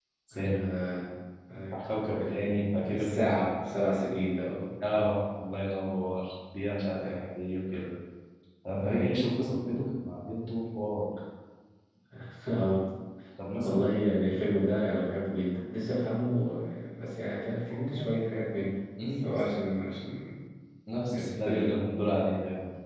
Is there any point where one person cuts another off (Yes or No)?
Yes